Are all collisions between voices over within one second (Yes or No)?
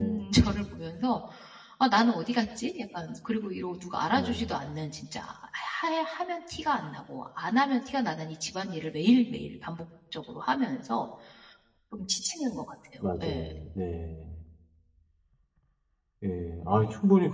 Yes